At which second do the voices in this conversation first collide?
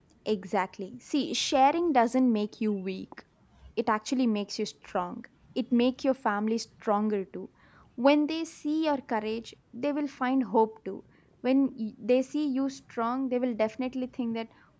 none

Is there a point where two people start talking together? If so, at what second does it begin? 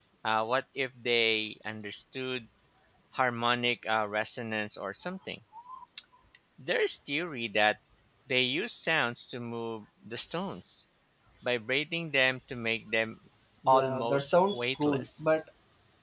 13.7 s

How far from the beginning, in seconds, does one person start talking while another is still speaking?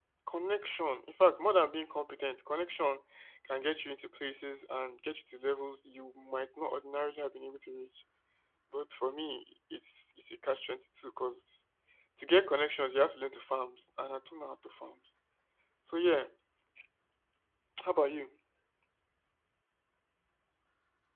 none

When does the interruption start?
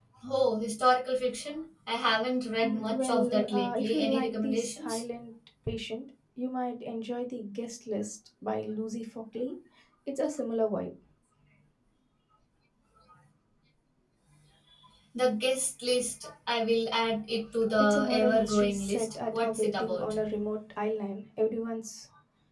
2.6 s

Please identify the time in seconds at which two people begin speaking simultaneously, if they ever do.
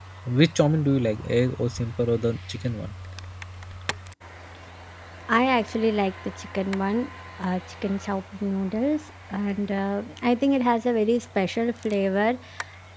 none

